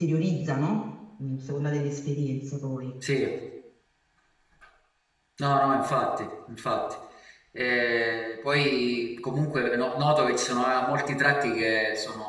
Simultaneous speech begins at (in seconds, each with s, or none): none